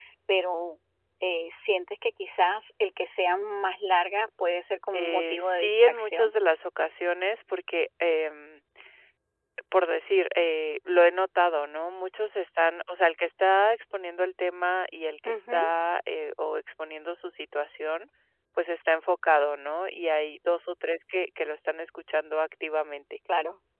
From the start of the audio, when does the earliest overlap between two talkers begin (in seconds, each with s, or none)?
4.9 s